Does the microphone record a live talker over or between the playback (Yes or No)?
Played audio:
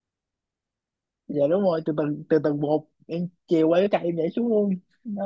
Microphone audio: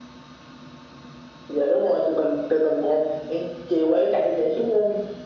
No